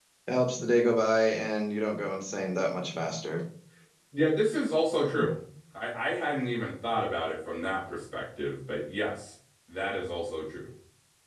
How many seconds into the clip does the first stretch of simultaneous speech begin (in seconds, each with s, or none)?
none